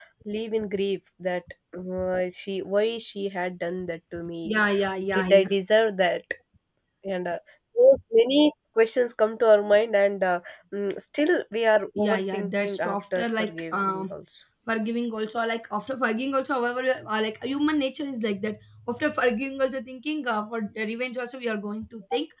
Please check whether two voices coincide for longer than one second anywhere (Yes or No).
Yes